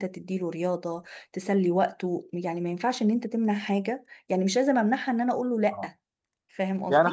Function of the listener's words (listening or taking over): taking over